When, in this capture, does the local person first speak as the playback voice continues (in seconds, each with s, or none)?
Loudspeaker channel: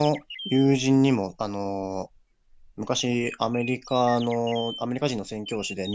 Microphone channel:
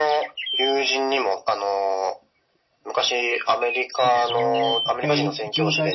4.0 s